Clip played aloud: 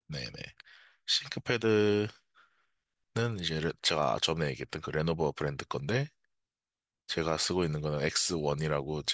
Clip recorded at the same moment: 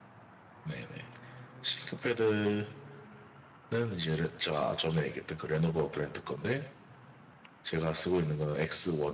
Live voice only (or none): none